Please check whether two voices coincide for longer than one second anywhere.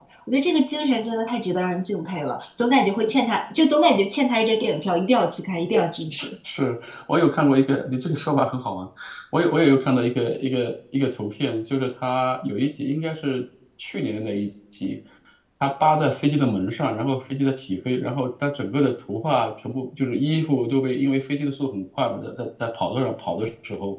No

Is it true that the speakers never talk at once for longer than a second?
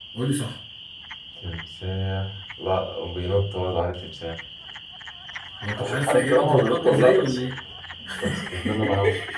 No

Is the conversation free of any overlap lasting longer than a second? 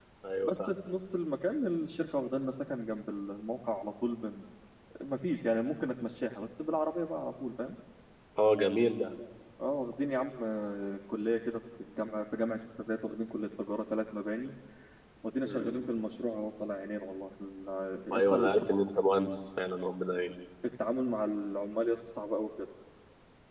Yes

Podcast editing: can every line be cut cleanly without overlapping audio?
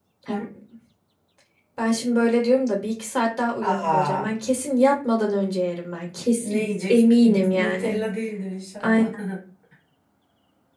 No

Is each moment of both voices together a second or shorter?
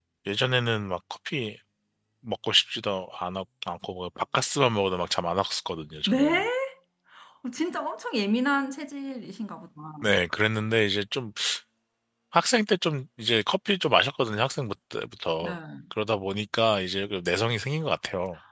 Yes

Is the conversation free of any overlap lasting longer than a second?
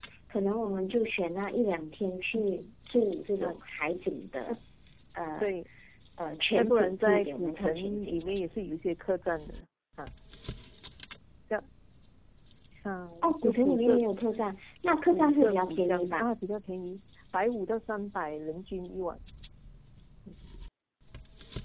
No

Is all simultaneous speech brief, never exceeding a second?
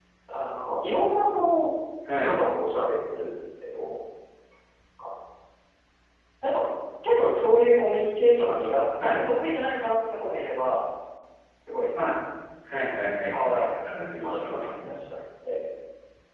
No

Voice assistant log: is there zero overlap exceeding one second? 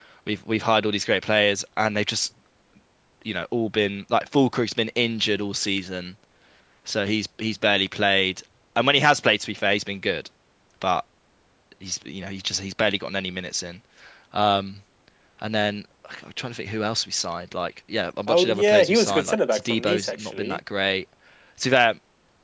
No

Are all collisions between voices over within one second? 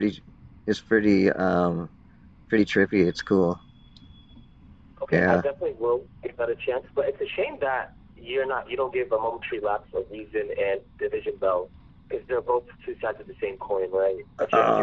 Yes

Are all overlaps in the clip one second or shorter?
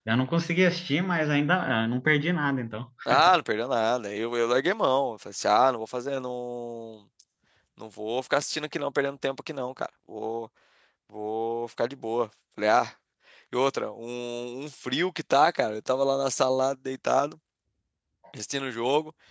Yes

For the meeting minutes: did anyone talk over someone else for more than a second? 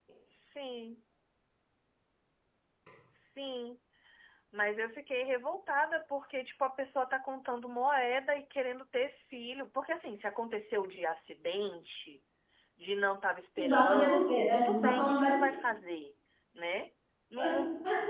Yes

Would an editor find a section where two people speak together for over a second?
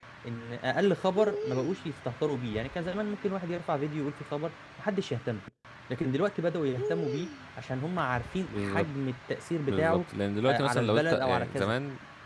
Yes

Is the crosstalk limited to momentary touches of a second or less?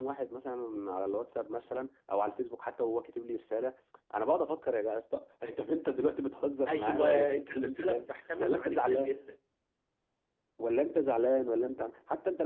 No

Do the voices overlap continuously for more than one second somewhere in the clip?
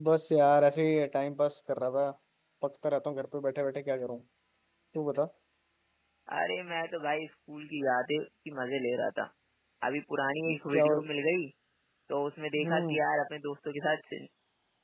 No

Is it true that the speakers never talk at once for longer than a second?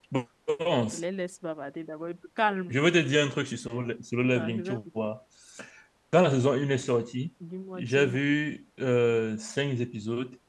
Yes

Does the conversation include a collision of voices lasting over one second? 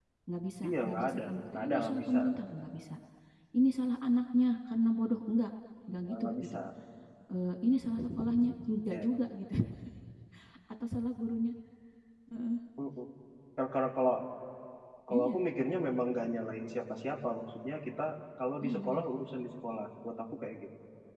Yes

